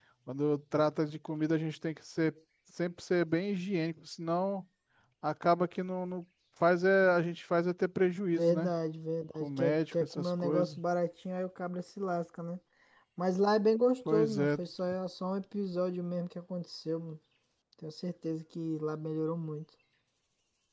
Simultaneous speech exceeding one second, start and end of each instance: 9.4-10.8

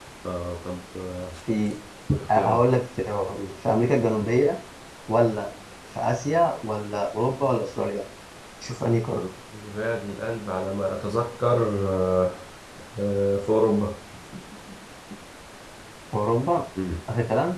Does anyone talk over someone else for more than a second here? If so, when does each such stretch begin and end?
none

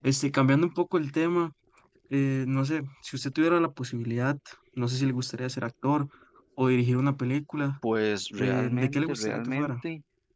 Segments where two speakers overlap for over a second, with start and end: 8.4-9.7

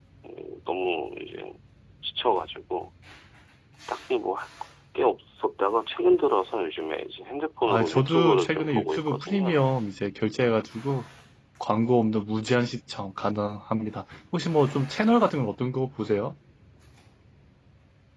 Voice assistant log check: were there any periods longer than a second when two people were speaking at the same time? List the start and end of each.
7.7-9.6

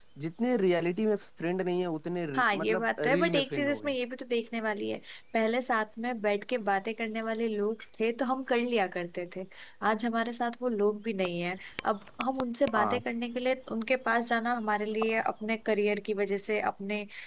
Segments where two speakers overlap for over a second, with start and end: 2.4-3.9

